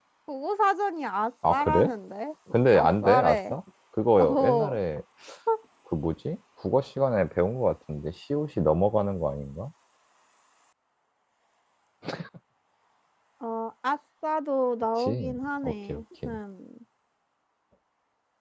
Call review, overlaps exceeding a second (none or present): present